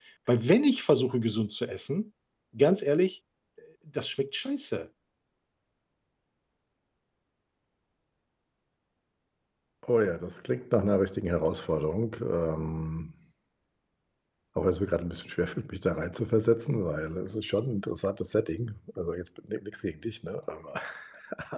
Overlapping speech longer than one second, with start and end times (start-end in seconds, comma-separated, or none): none